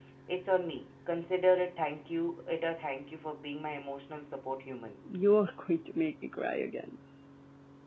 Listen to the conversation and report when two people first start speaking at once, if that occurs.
none

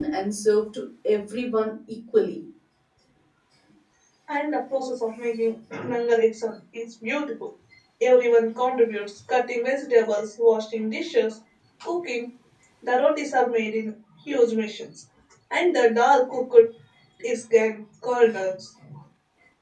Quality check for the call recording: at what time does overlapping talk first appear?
none

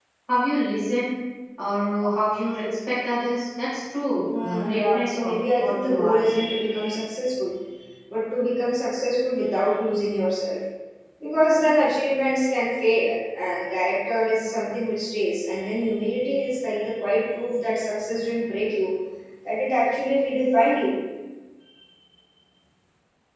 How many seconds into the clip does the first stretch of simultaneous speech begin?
4.3 s

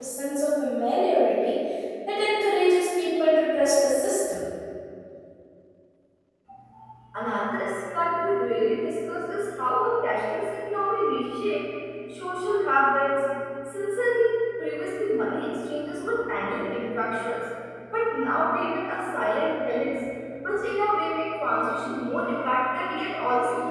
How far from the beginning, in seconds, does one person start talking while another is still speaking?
none

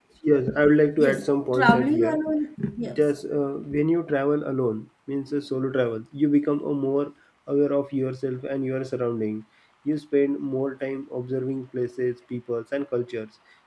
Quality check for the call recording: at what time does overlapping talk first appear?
1.0 s

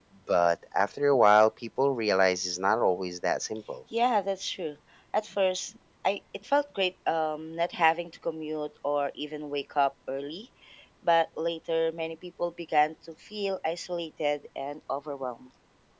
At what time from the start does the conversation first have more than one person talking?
none

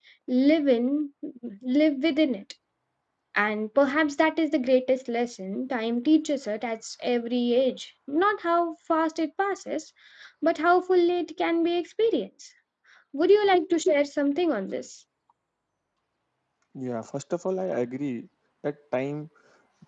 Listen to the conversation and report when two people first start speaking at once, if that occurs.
none

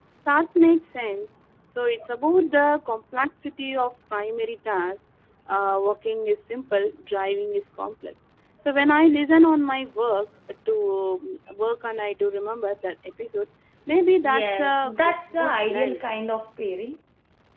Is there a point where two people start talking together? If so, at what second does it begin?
14.2 s

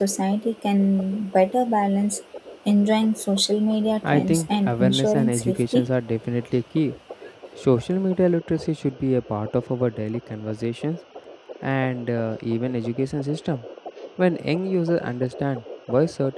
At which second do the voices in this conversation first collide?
4.0 s

